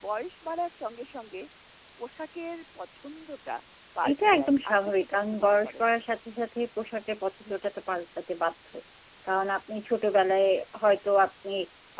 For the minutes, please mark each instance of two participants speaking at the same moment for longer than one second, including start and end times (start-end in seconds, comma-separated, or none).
4.1-5.8